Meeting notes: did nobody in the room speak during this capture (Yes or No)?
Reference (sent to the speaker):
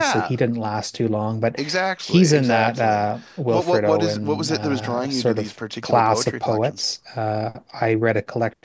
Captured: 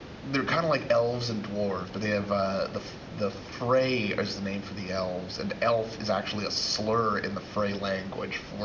No